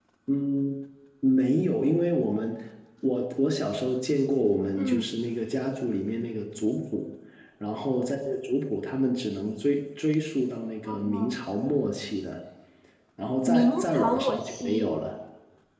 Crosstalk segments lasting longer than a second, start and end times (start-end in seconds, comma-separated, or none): 13.5-14.9